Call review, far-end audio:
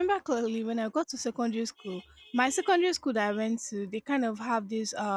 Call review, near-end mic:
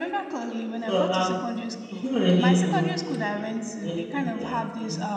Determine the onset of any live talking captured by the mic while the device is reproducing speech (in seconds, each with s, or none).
0.8 s